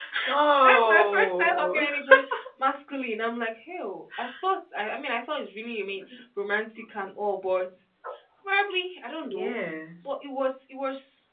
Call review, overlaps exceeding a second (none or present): present